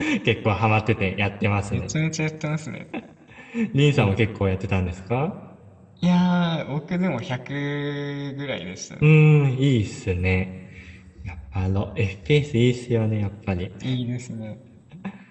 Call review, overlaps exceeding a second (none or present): none